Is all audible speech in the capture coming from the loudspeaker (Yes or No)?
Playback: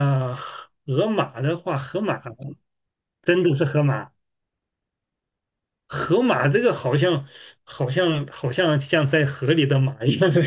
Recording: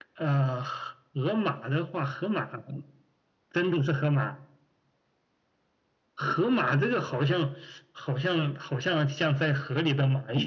Yes